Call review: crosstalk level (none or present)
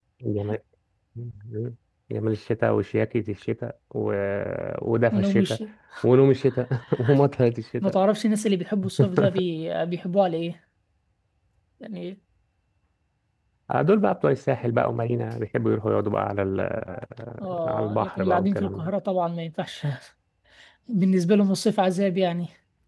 present